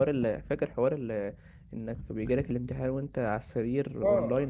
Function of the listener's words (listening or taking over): taking over